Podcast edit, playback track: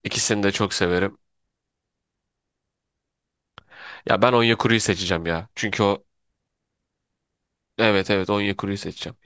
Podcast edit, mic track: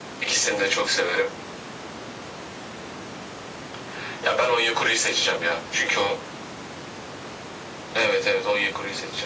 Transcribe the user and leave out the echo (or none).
none